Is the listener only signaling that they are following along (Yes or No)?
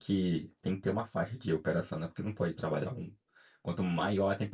Yes